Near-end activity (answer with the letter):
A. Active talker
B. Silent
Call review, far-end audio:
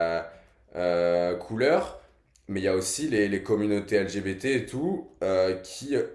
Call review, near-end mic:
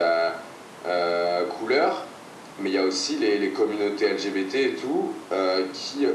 B